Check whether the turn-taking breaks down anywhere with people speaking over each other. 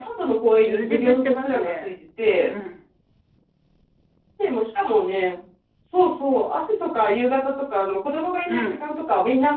Yes, from 0.6 s

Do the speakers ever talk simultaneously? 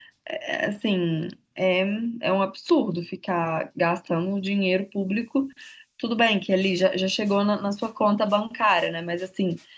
No

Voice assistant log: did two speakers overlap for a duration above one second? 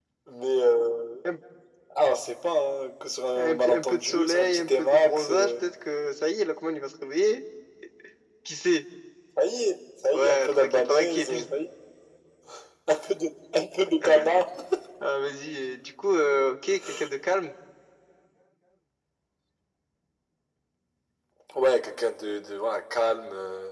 Yes, from 3.4 s

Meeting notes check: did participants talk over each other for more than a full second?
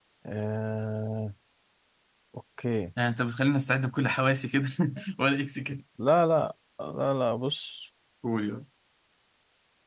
No

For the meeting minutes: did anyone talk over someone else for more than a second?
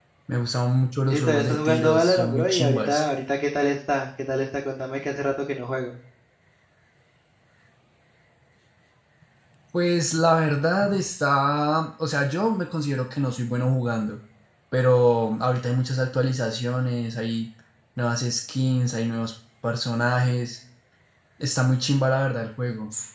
Yes, from 1.1 s

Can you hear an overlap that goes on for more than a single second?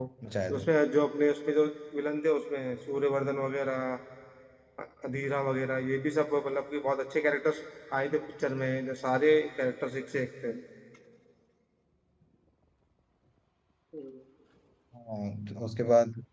No

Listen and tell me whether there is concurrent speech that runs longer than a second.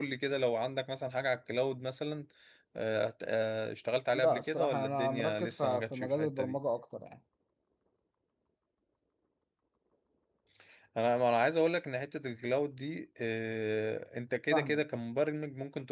Yes, from 4.1 s

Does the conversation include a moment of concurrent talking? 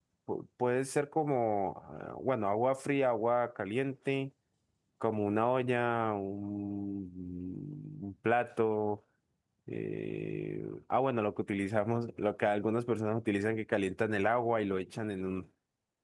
No

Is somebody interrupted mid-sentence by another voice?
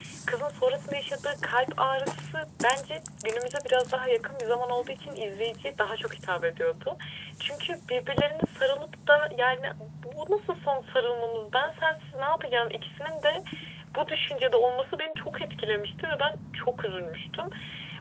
No

